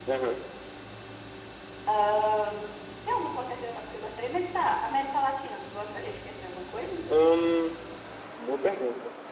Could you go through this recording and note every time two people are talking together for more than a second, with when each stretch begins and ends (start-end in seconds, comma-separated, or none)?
none